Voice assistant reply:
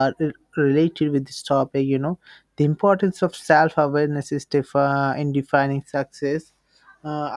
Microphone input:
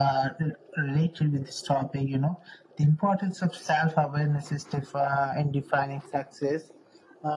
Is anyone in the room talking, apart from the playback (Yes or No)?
No